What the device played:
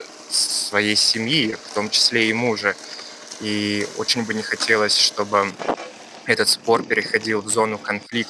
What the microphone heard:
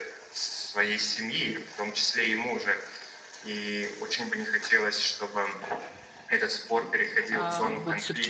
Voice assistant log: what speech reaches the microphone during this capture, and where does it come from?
both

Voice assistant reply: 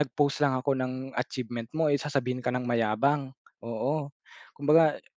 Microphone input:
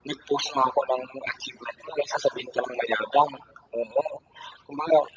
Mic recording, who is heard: echo only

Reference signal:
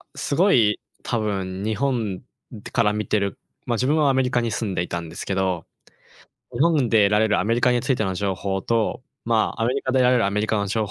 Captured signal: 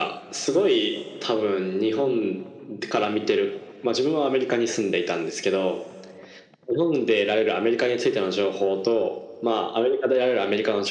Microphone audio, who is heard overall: echo only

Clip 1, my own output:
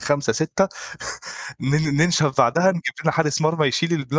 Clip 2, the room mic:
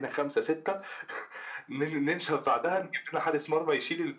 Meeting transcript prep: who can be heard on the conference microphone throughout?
echo only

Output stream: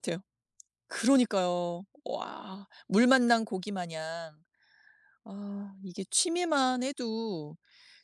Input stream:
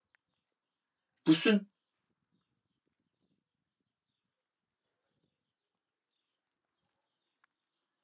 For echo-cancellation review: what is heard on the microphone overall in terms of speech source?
user only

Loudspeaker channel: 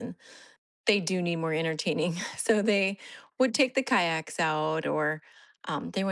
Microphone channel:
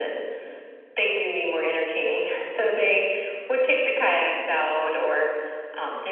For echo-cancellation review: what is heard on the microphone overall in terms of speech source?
echo only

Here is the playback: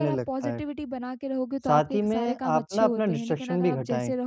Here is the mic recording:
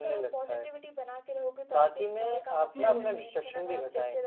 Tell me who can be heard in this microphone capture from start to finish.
both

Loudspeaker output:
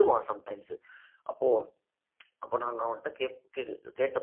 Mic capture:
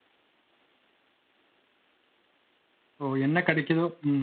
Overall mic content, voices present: user only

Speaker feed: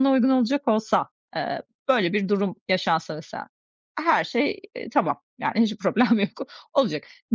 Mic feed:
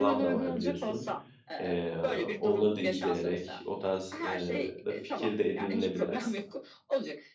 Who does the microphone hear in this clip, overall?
both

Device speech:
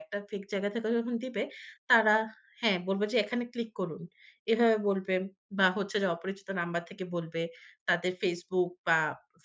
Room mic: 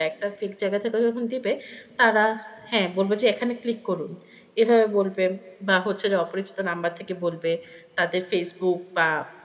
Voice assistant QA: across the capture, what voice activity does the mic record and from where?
echo only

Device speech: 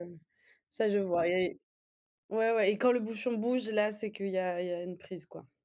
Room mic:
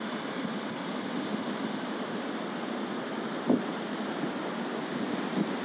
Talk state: neither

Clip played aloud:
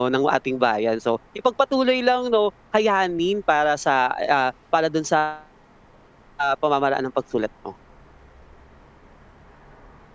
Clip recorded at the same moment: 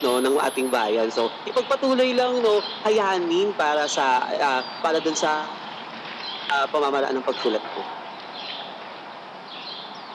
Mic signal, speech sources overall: echo only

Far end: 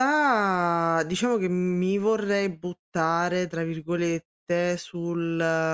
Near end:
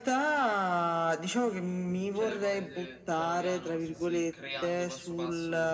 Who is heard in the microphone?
both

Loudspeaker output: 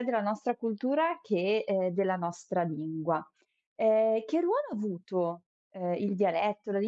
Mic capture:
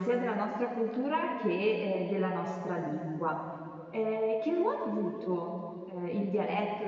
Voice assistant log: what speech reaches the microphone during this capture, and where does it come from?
echo only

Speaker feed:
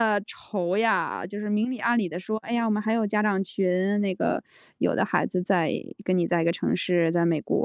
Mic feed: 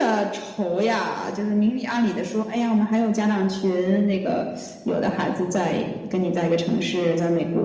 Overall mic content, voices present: echo only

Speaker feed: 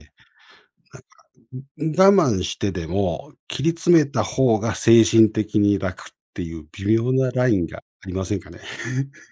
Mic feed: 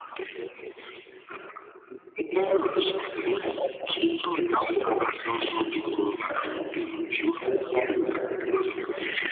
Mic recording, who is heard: both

